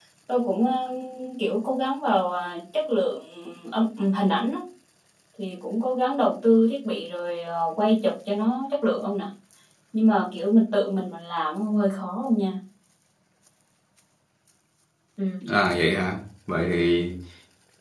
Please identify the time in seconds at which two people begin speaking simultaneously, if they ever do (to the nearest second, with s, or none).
none